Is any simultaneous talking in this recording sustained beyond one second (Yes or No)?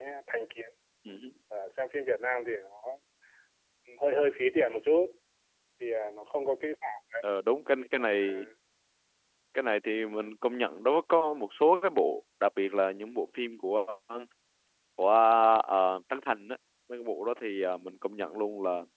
No